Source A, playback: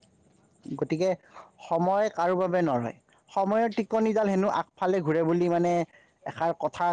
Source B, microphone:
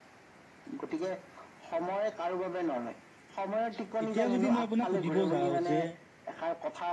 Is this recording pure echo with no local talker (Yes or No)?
No